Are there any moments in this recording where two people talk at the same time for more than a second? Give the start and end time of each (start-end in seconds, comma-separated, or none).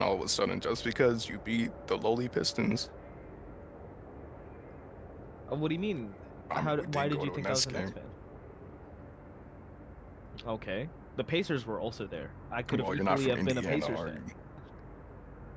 6.5-7.9, 12.7-14.2